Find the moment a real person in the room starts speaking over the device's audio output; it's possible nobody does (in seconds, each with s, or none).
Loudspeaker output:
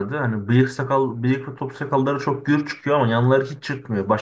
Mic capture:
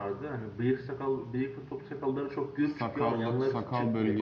2.6 s